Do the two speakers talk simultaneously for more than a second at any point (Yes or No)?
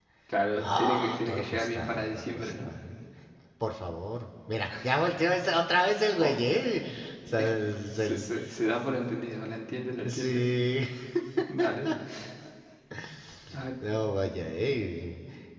Yes